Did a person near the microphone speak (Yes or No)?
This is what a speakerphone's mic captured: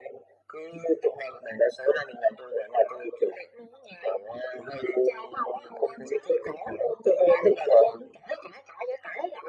No